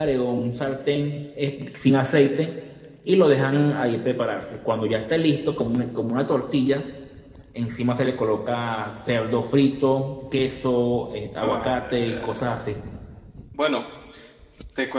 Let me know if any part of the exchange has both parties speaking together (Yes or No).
Yes